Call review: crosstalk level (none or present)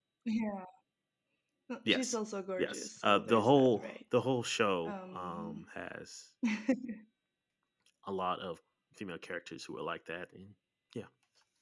present